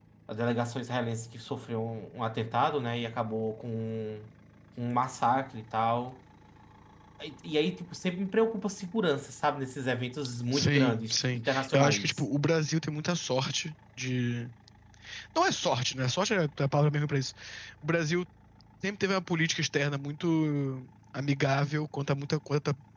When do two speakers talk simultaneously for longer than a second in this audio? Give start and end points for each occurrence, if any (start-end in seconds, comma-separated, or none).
10.5-12.2